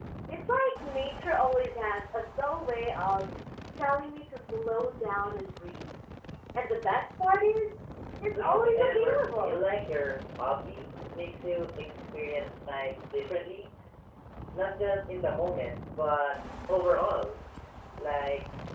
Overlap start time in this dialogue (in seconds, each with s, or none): 8.4 s